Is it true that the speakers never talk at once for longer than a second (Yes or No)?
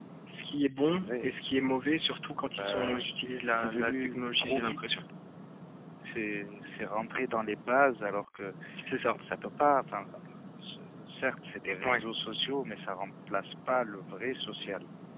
No